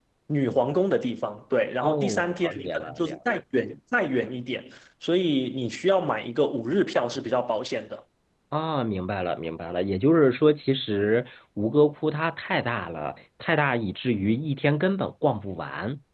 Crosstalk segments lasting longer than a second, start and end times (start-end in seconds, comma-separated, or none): 1.8-3.2